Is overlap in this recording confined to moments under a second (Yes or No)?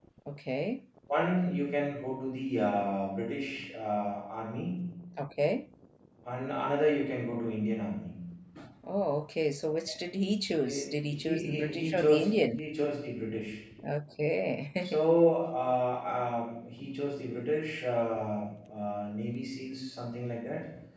No